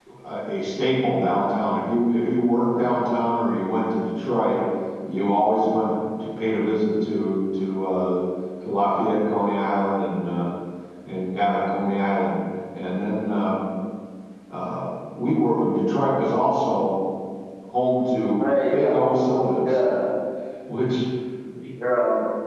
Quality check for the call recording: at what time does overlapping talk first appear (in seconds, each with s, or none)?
18.4 s